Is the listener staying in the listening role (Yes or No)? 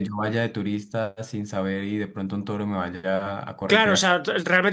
No